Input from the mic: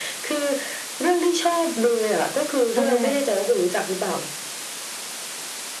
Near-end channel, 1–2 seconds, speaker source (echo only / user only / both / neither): echo only